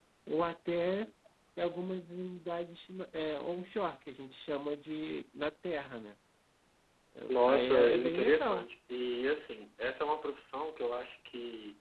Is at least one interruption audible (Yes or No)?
Yes